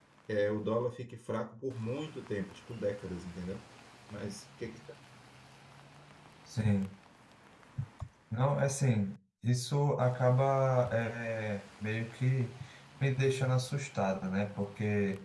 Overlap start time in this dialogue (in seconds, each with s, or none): none